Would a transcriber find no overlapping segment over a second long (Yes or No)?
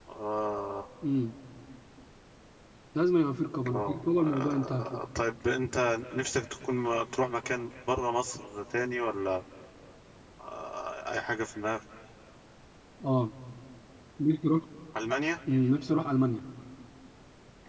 No